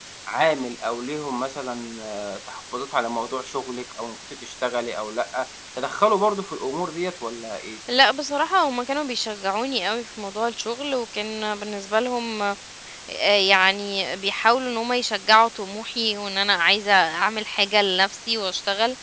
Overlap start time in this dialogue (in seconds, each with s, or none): none